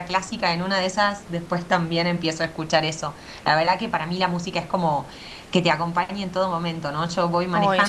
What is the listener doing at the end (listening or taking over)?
listening